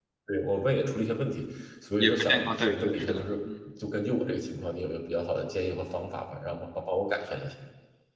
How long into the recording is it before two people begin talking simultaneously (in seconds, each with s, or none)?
2.0 s